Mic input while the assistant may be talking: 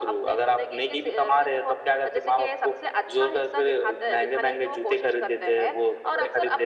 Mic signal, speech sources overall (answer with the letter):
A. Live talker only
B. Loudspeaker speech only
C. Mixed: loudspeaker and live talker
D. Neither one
B